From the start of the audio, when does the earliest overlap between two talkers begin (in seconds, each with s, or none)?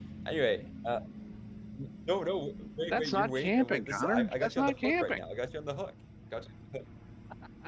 2.9 s